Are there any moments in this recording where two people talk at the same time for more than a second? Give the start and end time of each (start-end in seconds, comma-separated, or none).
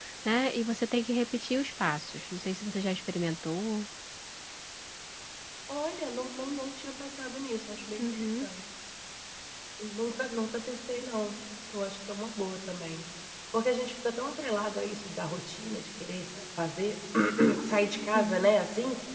none